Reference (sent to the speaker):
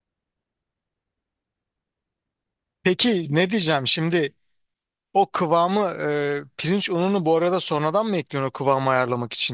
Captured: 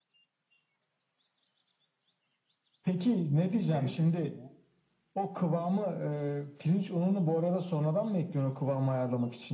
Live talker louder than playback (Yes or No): No